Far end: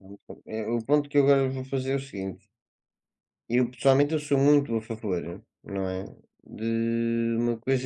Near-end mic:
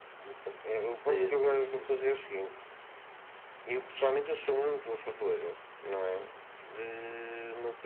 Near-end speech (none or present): present